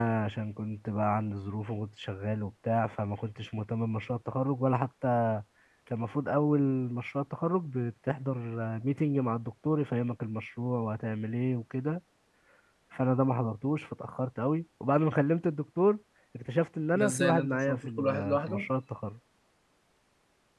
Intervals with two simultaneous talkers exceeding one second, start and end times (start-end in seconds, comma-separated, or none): 17.0-18.7